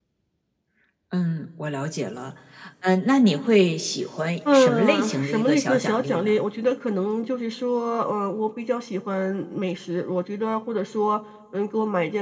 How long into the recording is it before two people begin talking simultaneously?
4.5 s

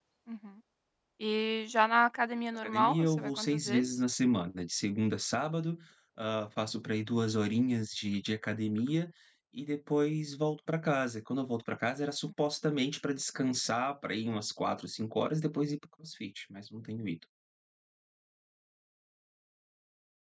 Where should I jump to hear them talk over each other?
2.6 s

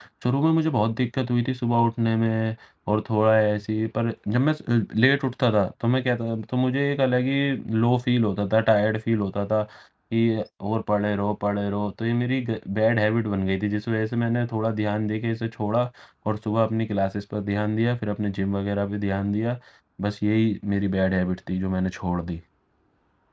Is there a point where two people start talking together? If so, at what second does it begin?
none

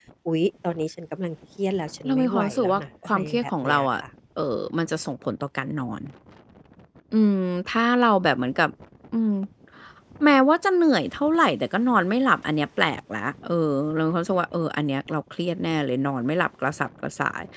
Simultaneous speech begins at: 2.0 s

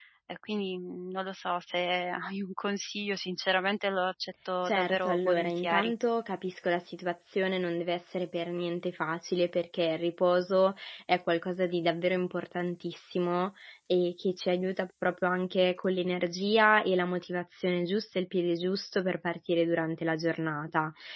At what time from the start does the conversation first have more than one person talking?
4.6 s

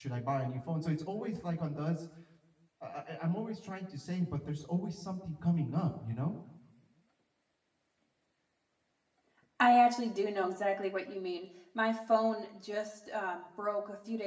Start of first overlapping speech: none

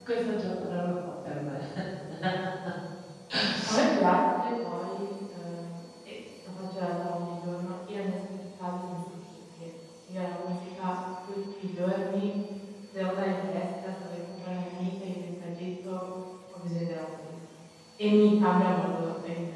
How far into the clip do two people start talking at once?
none

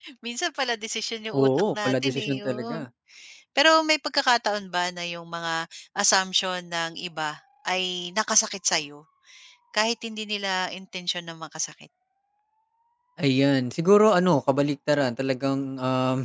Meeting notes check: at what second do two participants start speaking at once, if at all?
1.3 s

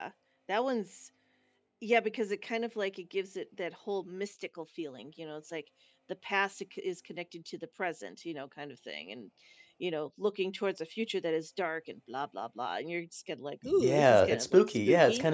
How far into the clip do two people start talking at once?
13.8 s

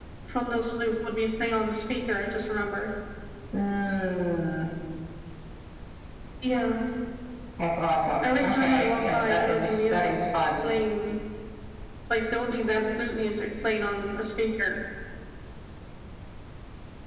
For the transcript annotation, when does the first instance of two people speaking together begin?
8.2 s

